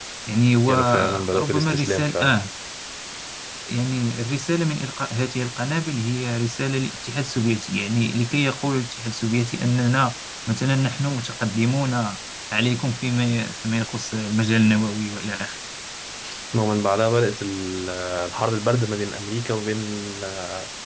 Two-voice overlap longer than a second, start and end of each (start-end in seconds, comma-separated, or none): 0.7-2.4